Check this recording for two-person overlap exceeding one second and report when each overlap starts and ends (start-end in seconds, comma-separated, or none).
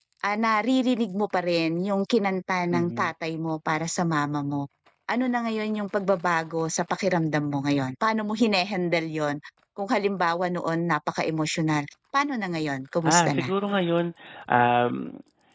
none